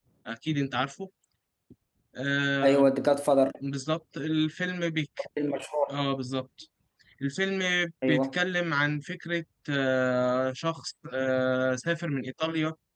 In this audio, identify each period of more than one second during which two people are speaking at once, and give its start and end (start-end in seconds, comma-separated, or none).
none